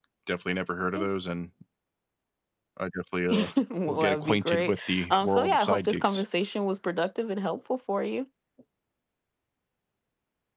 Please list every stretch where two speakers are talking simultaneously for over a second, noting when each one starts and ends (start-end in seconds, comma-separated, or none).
3.9-6.2